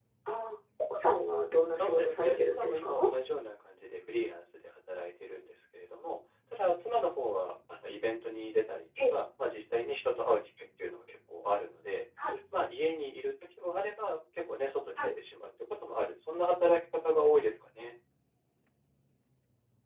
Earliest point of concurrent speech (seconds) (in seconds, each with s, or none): 1.7 s